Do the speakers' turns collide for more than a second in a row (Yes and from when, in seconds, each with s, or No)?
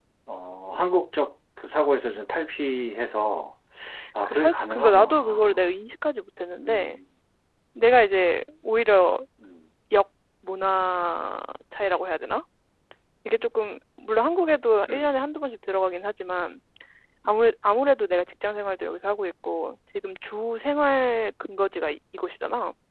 Yes, from 4.2 s